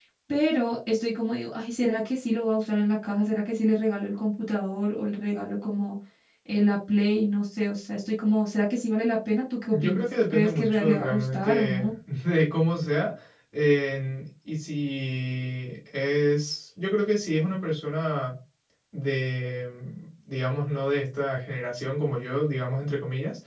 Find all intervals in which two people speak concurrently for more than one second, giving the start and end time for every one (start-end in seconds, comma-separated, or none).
9.7-11.9